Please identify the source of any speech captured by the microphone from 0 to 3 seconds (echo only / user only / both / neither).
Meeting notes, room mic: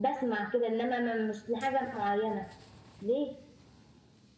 echo only